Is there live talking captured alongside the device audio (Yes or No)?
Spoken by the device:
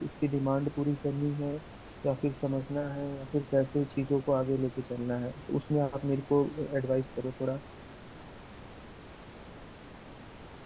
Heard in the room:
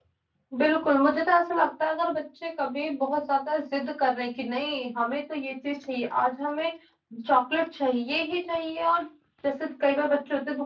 Yes